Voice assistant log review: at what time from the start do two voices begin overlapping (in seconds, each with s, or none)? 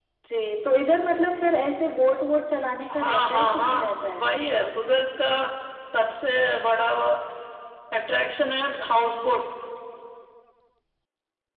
2.9 s